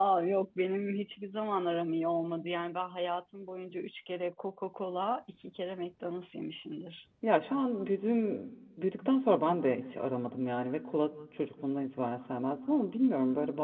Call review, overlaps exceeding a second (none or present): none